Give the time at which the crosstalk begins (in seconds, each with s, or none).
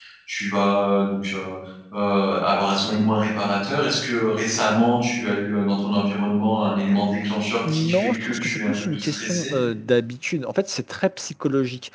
7.6 s